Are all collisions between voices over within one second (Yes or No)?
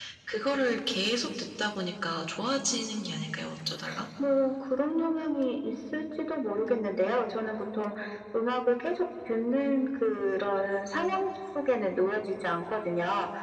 Yes